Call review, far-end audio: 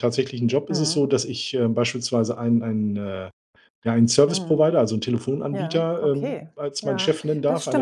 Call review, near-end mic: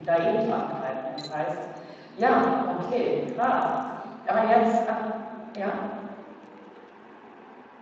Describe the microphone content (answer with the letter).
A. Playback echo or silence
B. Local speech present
B